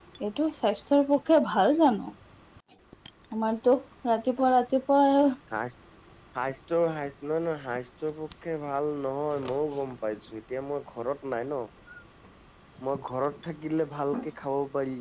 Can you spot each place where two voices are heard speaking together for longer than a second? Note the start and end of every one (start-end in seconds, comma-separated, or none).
none